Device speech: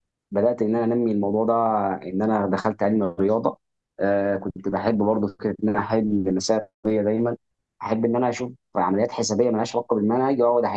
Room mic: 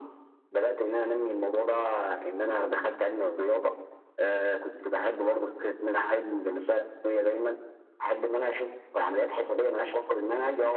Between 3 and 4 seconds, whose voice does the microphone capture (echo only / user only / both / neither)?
echo only